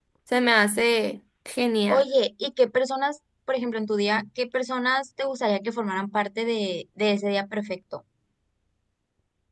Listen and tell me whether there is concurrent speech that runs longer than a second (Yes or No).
No